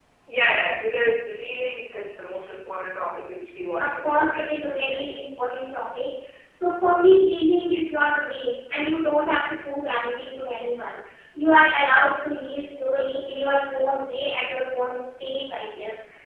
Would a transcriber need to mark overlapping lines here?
Yes, from 3.8 s

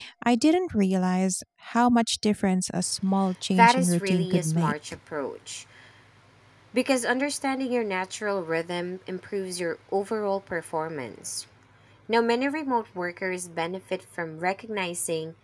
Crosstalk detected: Yes, from 3.5 s

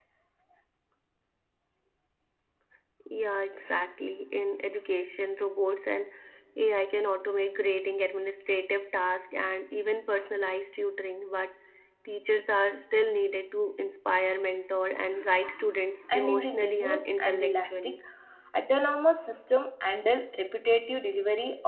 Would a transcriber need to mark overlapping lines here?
Yes, from 16.1 s

